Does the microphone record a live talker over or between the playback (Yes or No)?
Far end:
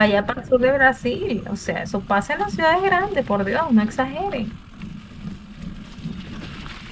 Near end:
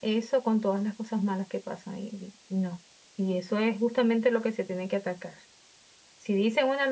Yes